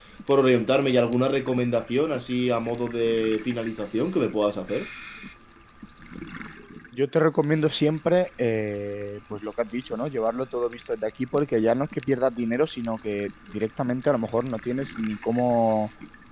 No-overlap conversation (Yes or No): Yes